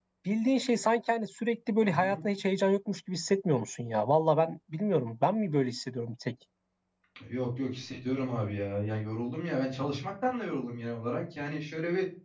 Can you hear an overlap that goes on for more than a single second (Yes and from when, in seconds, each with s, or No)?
No